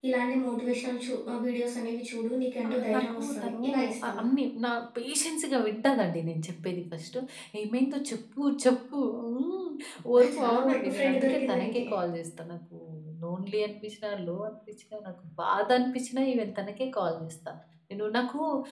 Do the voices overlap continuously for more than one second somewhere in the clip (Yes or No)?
Yes